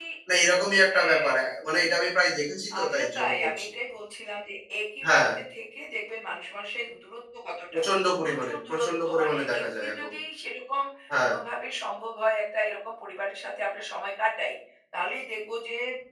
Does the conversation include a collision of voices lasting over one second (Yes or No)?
Yes